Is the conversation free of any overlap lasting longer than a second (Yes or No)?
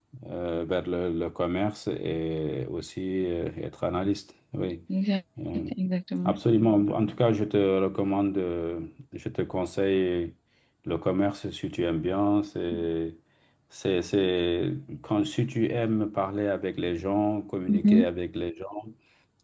Yes